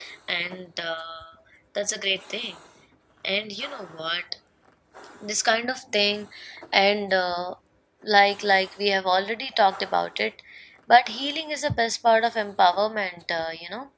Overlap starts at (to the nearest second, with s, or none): none